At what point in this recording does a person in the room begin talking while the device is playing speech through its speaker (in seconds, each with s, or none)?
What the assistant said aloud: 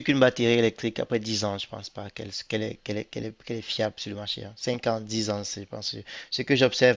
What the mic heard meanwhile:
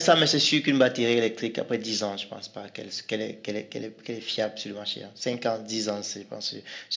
none